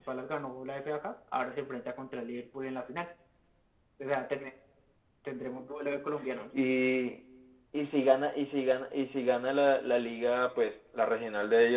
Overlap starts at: none

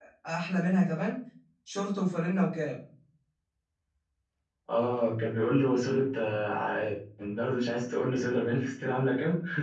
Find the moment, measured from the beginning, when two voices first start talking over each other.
none

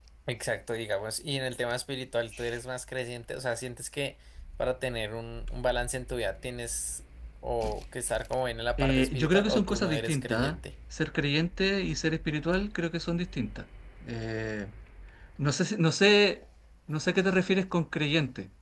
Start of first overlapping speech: 8.8 s

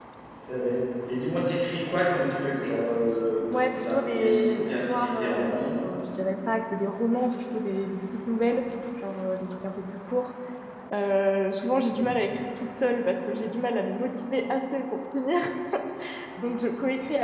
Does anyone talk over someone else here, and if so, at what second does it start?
3.7 s

